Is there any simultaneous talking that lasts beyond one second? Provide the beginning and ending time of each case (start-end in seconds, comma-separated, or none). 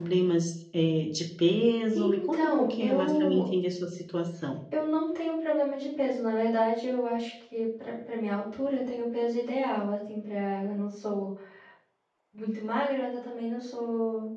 1.9-3.5